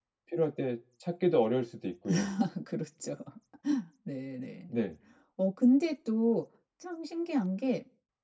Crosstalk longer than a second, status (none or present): none